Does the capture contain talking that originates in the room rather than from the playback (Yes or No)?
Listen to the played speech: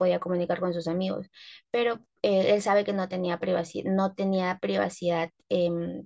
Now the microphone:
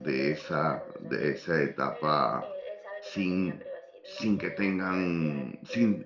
Yes